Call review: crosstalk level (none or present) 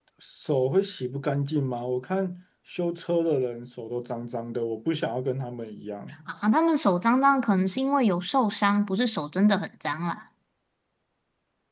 none